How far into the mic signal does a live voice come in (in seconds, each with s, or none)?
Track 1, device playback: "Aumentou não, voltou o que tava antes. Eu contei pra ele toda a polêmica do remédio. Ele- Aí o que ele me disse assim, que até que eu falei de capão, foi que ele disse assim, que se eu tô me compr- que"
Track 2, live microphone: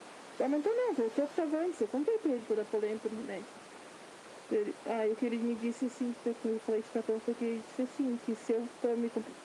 none